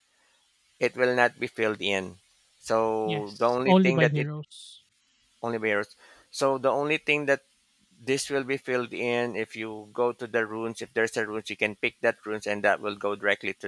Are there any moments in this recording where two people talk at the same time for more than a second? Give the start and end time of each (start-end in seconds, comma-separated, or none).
3.0-4.2